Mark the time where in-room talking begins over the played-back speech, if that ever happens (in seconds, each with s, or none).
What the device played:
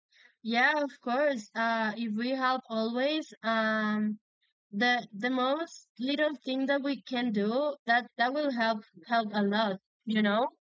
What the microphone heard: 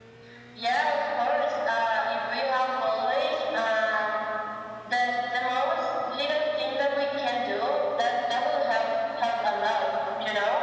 none